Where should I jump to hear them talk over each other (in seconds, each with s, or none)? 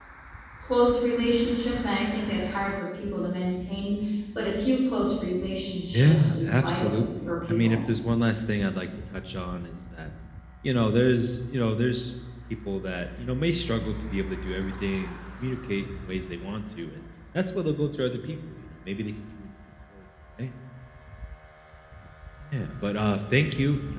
5.9 s